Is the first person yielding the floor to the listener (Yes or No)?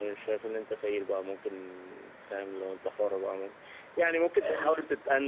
No